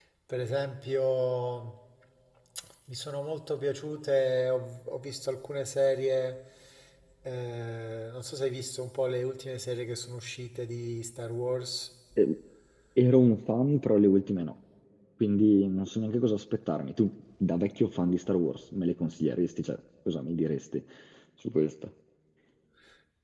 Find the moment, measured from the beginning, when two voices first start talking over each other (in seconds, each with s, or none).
none